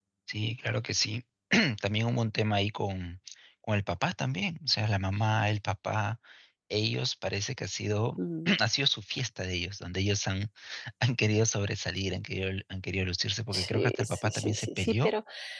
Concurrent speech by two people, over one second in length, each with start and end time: 13.5-15.1

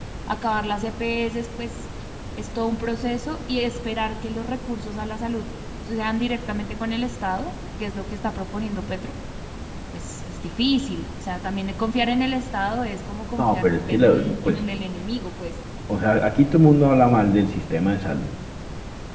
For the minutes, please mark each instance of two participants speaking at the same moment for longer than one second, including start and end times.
13.4-14.7

